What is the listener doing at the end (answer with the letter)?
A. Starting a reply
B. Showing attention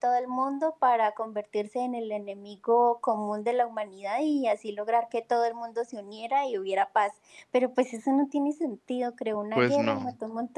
B